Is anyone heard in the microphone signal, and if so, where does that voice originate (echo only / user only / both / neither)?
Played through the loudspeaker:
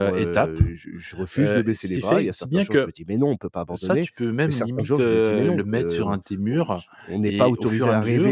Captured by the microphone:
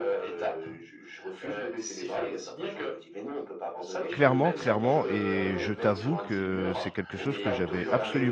both